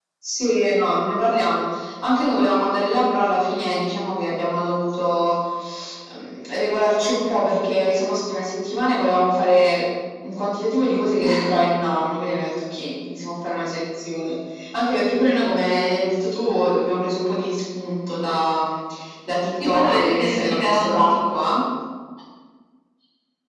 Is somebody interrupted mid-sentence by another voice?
Yes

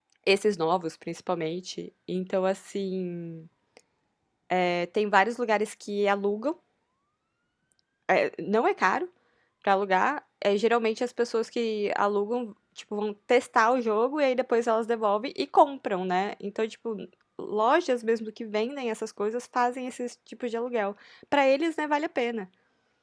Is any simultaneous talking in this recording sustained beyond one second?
No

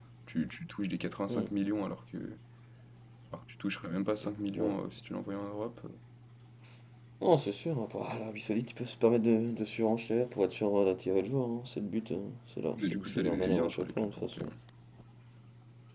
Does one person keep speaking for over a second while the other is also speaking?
Yes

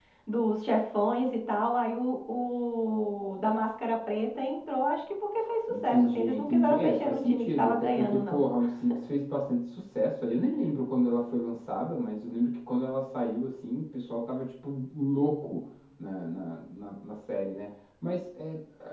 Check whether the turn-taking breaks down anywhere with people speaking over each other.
Yes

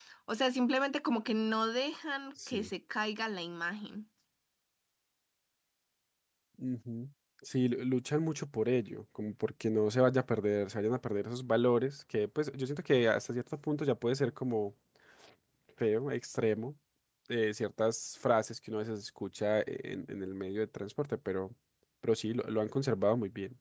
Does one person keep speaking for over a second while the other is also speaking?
No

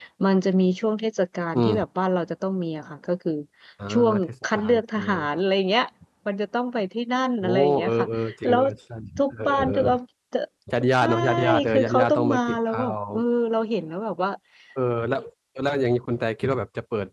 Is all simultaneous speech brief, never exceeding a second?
No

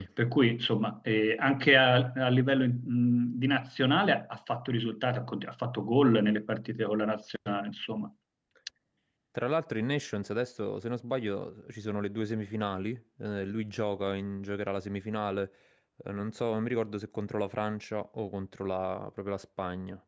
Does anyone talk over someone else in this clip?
No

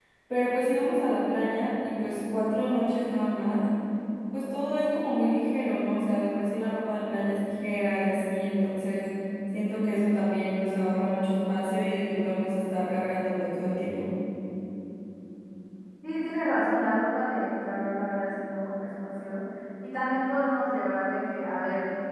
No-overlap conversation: Yes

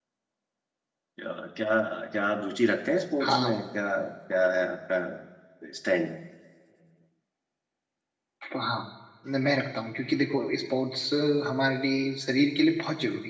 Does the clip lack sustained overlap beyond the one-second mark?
Yes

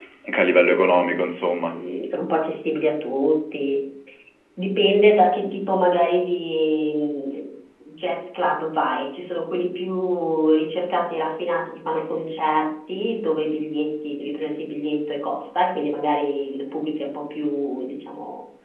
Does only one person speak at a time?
Yes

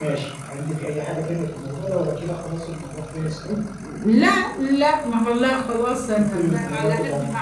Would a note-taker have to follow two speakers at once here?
Yes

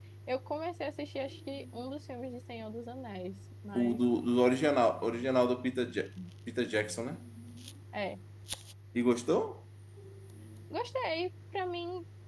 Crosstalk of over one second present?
No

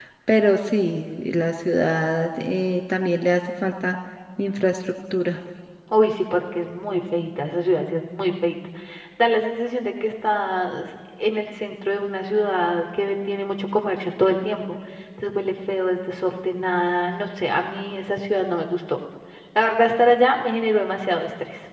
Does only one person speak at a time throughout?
Yes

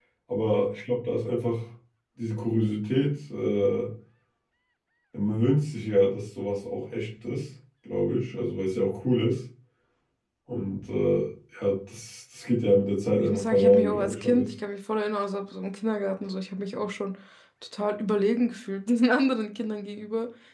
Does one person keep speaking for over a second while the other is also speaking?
Yes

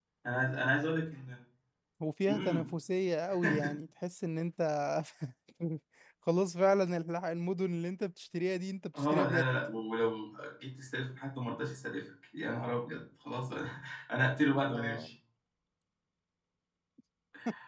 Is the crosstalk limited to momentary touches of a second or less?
Yes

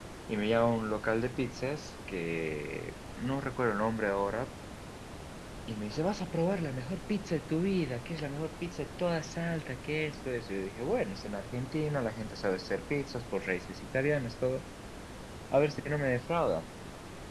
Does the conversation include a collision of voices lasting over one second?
No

